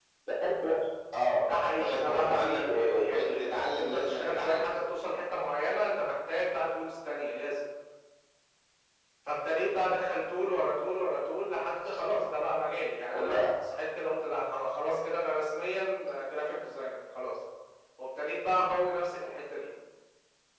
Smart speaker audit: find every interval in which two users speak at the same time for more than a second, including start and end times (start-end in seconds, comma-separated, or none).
1.4-4.6